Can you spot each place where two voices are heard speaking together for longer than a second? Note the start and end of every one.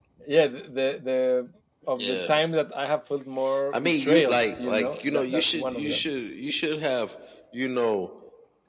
3.7-6.0

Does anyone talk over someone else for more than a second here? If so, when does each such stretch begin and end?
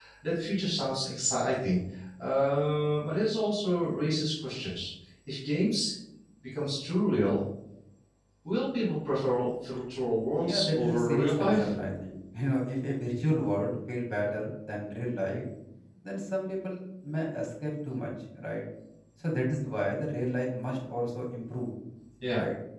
10.4-11.7

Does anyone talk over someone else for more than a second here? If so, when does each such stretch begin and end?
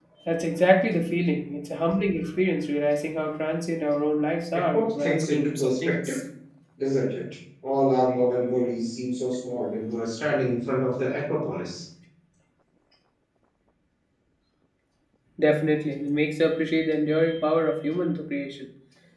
4.7-6.2

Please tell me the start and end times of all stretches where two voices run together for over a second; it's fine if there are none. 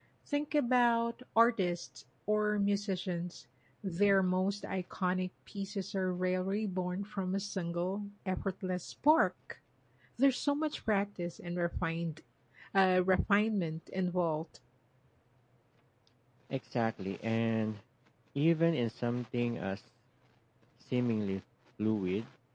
none

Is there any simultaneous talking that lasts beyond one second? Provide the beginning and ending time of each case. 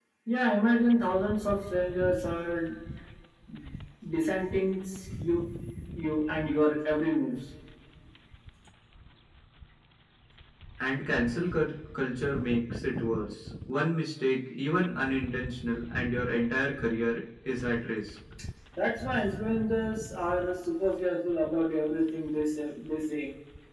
none

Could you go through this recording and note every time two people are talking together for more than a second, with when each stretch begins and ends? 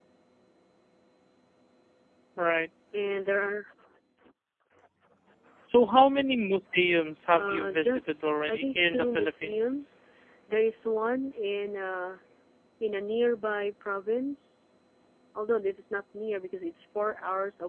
7.3-9.9

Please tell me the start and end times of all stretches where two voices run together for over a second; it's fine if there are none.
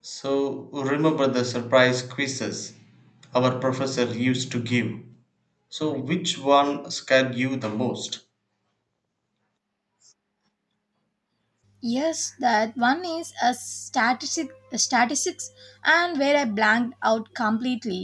none

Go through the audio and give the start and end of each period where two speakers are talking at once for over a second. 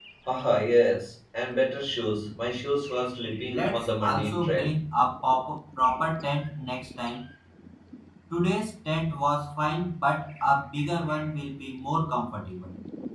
3.4-4.8

